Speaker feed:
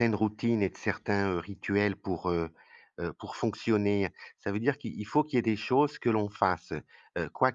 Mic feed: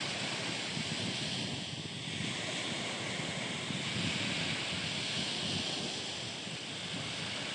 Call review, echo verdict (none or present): none